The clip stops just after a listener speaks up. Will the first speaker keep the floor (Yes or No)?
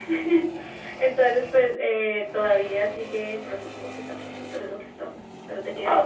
No